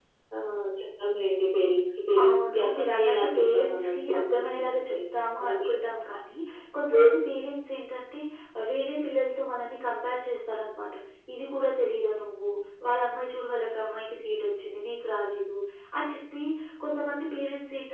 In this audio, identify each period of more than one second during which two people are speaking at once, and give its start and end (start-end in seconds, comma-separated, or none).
2.2-5.0